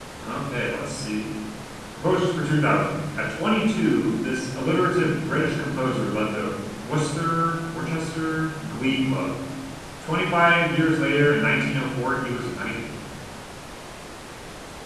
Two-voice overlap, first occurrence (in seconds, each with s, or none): none